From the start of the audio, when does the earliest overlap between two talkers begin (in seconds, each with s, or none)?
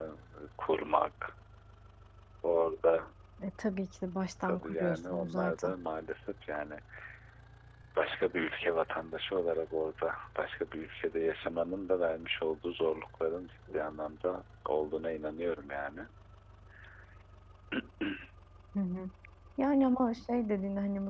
4.4 s